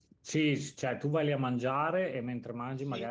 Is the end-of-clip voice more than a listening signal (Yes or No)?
No